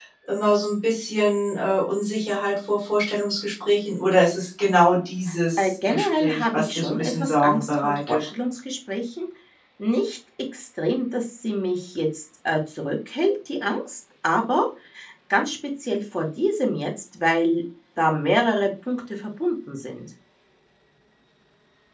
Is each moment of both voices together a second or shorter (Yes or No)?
No